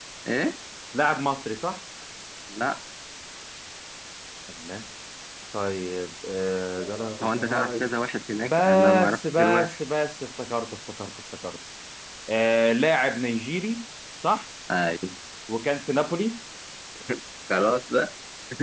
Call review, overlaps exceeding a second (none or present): present